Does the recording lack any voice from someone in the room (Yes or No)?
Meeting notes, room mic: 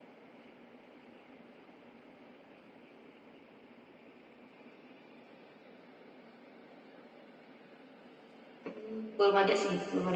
No